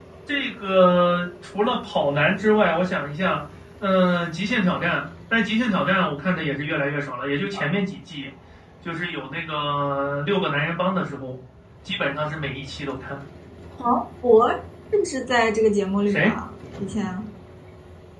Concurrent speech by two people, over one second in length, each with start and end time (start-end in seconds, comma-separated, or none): none